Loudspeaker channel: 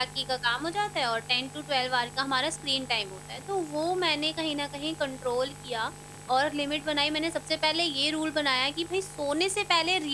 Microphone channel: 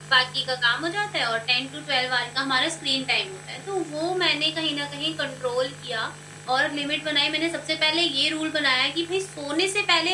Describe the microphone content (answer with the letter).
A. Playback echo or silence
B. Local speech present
A